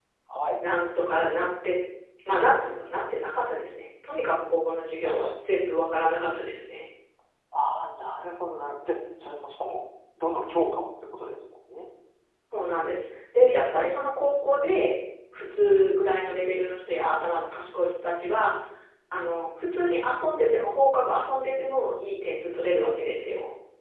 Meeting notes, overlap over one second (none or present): none